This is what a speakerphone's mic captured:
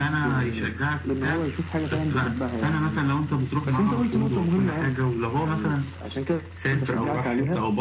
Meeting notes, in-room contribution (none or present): none